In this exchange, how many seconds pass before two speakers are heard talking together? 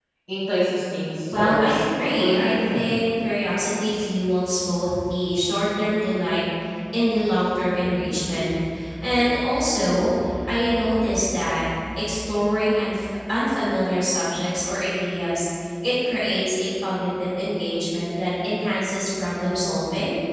1.3 s

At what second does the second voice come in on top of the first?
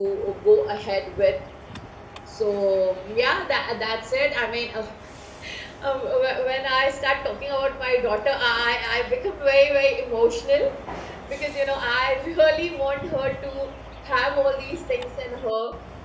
none

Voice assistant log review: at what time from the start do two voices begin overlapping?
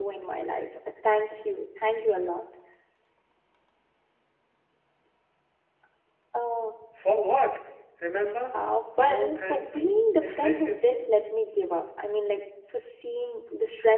9.0 s

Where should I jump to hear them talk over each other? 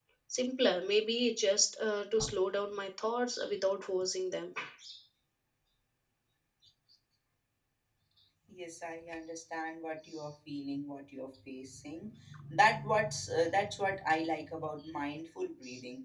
none

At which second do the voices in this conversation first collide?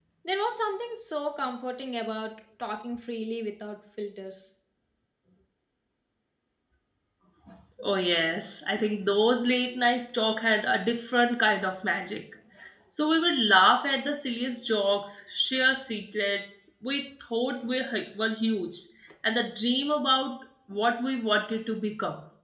none

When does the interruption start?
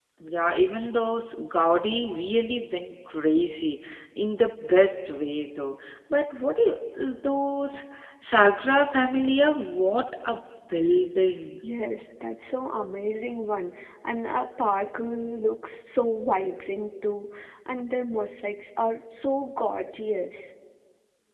none

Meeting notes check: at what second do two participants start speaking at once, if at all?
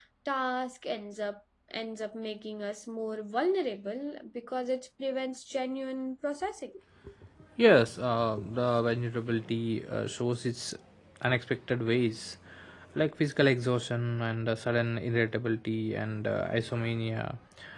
none

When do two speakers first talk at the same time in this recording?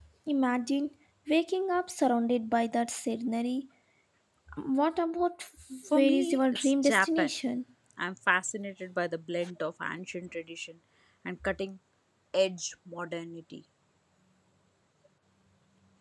5.9 s

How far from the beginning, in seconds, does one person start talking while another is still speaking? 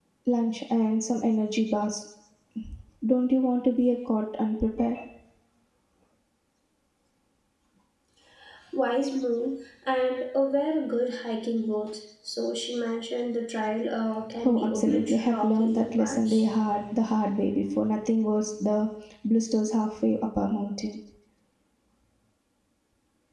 14.4 s

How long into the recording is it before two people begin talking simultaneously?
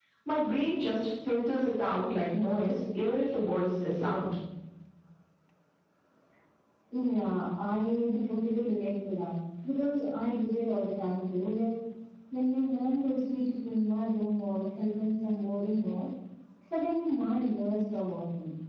none

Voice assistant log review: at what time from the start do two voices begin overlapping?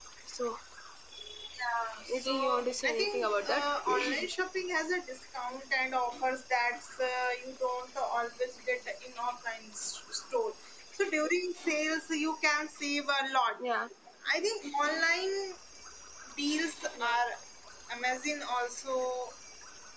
2.1 s

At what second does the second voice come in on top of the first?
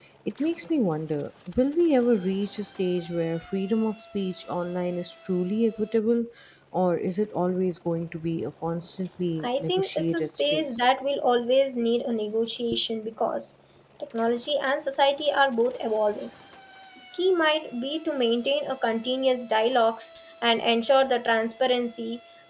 9.4 s

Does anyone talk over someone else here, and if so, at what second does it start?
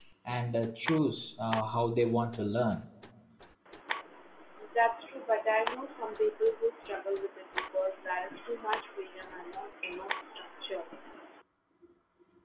none

